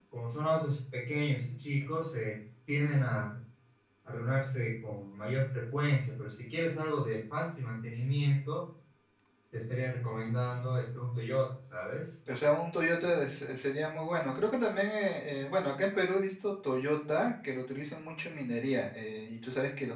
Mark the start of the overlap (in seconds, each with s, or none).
none